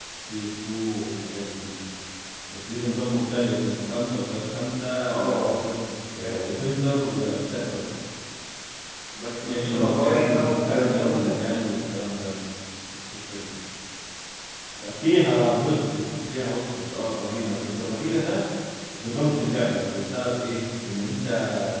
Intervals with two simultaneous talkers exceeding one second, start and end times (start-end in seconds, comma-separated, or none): 9.4-11.4